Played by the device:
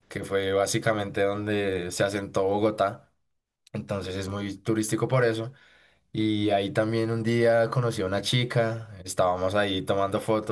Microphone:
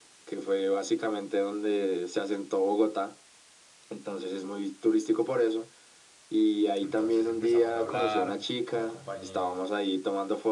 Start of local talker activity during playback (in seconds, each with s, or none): 6.8 s